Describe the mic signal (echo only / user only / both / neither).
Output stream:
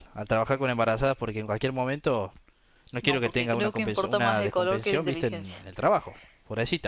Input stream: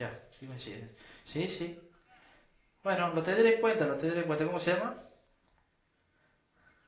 user only